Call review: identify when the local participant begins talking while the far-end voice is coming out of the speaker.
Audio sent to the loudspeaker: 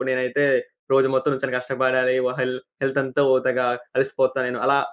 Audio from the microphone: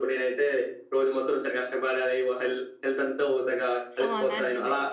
4.0 s

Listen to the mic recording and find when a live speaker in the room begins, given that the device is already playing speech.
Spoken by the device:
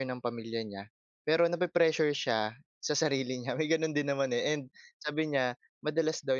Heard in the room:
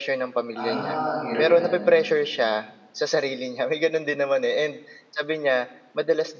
0.6 s

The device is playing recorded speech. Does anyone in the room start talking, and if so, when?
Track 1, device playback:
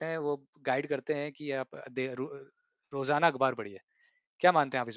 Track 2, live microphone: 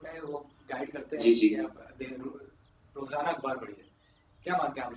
1.2 s

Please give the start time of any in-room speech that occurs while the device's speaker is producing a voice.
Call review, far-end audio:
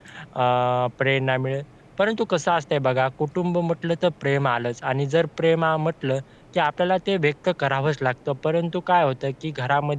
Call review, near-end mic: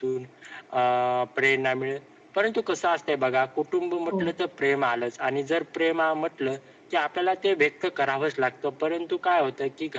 4.1 s

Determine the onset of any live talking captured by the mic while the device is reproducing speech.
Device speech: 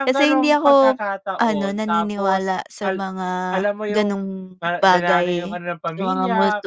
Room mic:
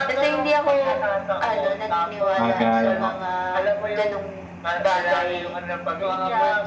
2.3 s

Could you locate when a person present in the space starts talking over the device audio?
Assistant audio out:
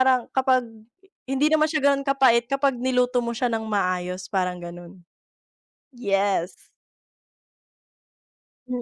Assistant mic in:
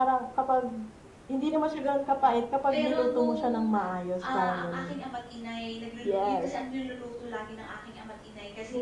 2.7 s

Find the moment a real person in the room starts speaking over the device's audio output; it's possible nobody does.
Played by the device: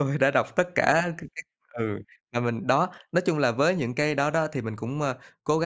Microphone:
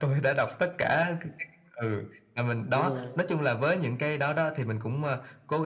2.7 s

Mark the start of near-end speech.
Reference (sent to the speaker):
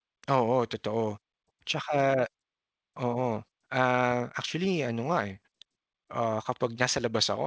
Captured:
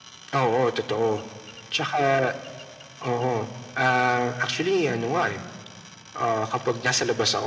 none

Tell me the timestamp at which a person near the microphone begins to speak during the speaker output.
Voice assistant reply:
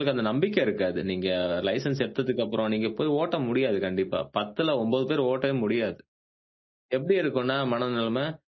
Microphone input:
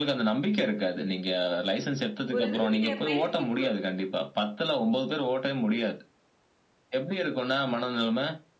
2.3 s

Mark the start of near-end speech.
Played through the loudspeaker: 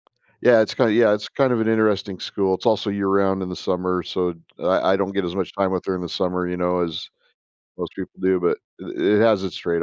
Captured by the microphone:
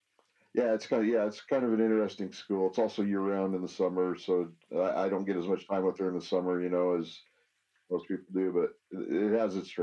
none

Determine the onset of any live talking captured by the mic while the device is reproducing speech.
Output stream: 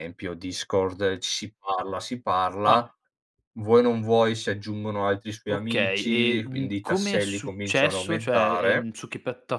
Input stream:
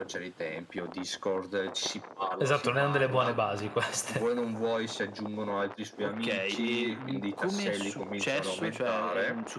2.4 s

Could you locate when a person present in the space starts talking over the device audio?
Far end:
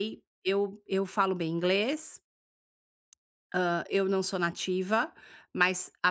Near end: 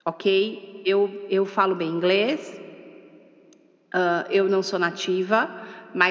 none

